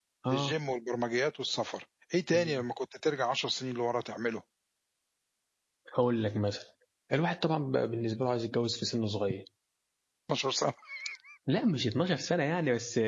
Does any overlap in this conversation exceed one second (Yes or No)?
No